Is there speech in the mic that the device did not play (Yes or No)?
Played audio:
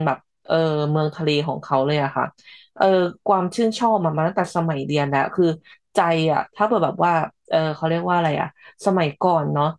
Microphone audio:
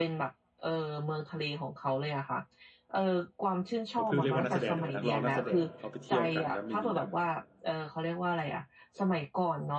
Yes